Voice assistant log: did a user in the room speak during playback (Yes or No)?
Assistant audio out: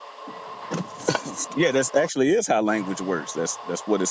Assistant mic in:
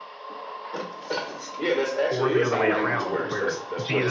Yes